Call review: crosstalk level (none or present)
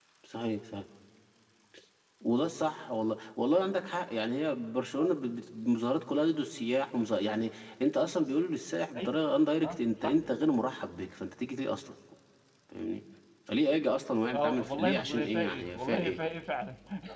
present